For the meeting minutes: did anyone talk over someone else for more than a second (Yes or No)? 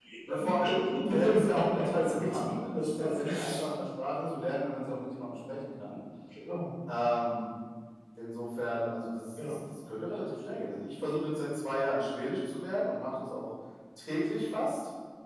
Yes